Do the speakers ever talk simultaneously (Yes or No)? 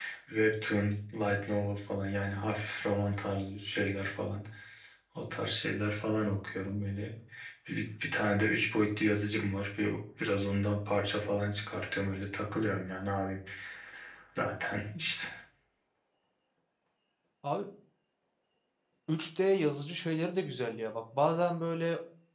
No